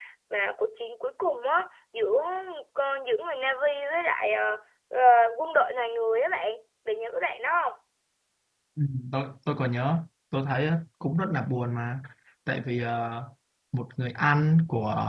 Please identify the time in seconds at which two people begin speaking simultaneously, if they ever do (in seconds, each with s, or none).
none